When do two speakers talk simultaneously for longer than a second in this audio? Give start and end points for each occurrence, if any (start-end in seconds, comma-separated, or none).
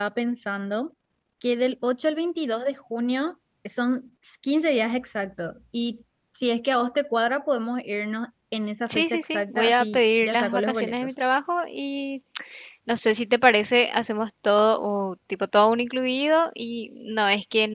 8.9-11.1